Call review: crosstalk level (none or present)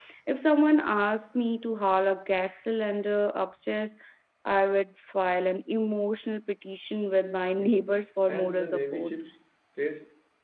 present